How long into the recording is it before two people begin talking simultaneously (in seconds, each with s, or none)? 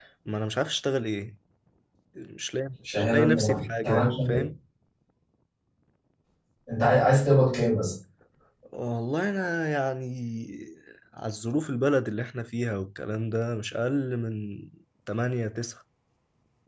3.0 s